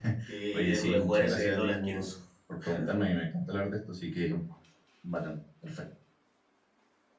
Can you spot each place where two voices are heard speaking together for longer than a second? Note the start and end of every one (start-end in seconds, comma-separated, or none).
0.5-2.1